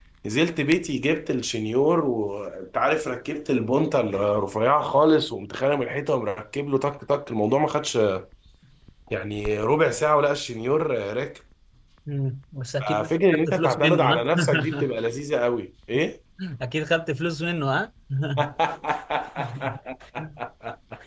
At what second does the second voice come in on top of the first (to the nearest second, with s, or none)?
13 s